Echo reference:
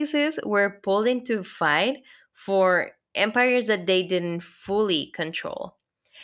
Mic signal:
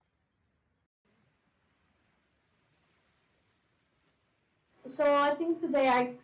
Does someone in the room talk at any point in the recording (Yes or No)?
Yes